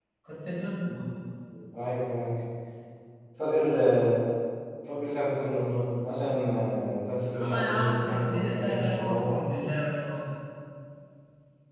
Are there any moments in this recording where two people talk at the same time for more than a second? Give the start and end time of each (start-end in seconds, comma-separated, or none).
7.3-9.4